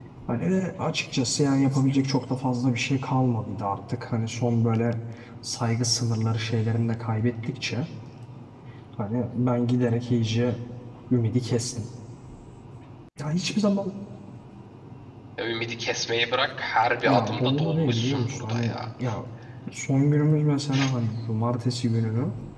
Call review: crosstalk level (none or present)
present